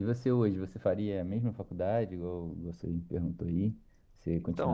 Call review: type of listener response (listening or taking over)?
taking over